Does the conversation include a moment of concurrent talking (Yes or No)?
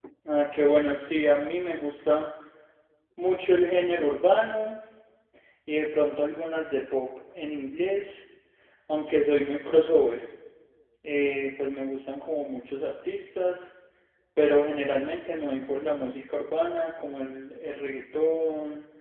No